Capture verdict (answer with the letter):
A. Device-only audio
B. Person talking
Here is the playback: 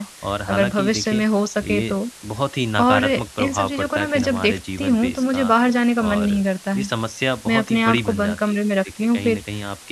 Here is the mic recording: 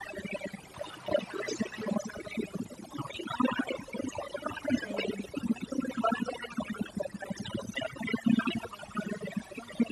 B